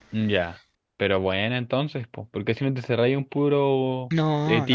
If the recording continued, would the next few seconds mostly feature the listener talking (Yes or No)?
No